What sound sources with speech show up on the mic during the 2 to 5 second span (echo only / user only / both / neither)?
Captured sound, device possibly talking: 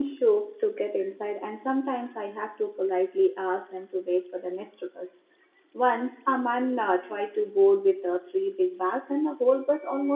user only